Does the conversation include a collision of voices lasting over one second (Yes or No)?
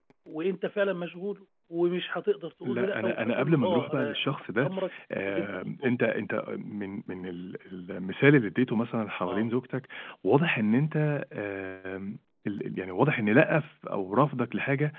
Yes